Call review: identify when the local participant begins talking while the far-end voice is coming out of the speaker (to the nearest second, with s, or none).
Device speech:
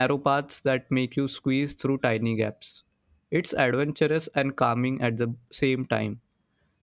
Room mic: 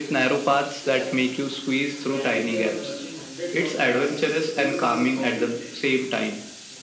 1 s